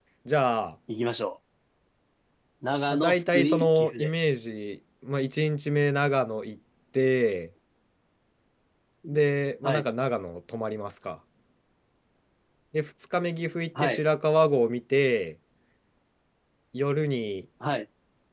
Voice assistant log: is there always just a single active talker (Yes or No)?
No